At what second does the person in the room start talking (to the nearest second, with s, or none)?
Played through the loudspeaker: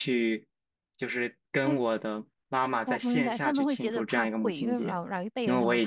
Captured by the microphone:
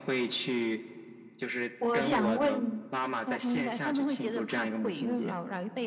2 s